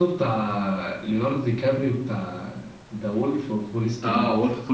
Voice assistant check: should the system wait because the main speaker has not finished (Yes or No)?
No